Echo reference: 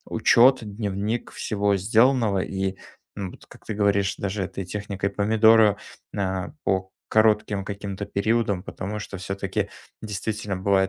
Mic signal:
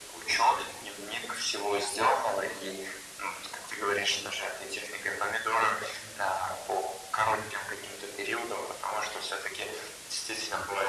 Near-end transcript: none

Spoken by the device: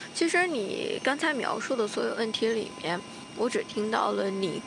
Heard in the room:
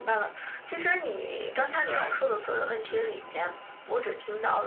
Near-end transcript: 哎，是是是的是的，

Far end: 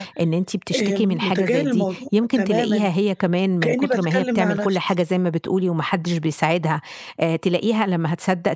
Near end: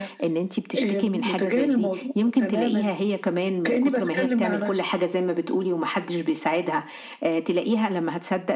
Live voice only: none

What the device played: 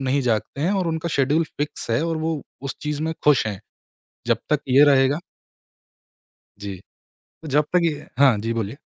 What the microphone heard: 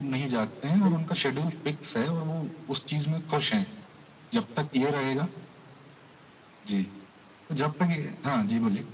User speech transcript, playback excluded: बिल्कुल,

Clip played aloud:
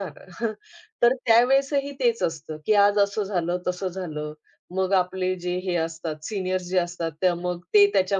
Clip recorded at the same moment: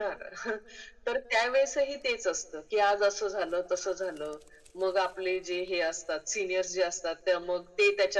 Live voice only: none

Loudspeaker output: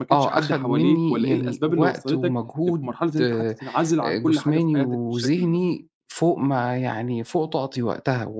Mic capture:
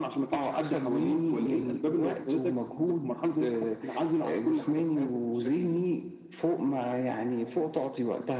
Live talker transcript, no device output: none

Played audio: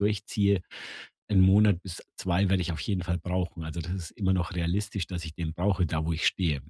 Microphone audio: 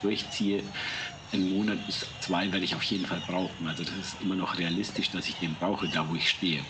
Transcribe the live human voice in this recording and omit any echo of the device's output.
none

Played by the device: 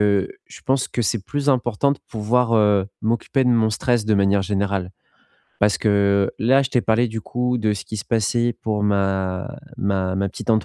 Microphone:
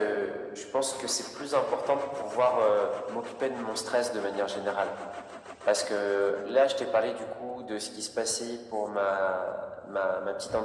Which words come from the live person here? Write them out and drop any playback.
none

